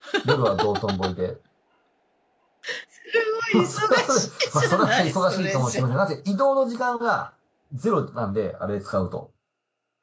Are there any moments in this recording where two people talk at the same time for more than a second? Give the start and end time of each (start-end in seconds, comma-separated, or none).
3.5-5.9